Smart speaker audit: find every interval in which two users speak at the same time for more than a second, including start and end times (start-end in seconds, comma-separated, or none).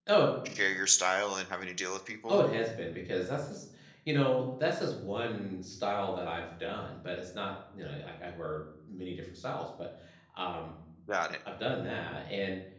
none